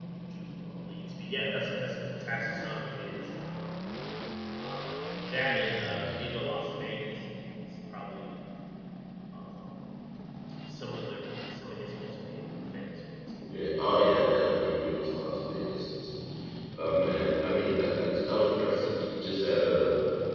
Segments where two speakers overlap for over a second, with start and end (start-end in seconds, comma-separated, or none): none